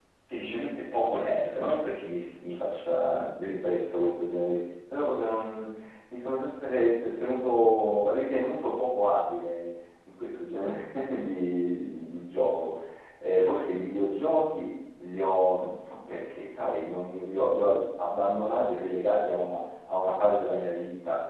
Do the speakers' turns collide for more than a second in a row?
No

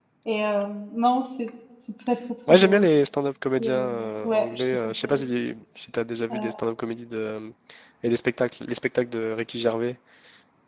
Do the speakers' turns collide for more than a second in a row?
Yes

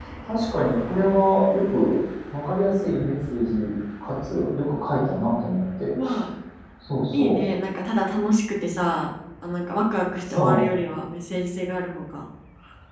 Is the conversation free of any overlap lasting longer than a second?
Yes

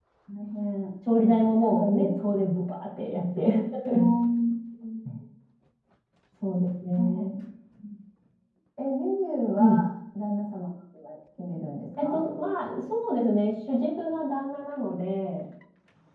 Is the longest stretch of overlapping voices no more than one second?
Yes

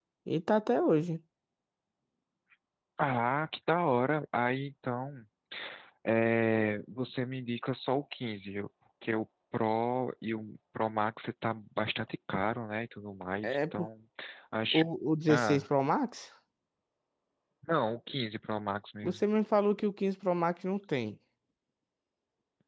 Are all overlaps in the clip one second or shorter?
Yes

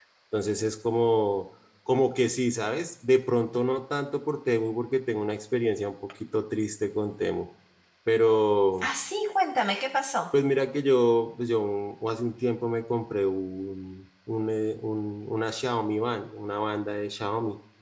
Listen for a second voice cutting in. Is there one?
No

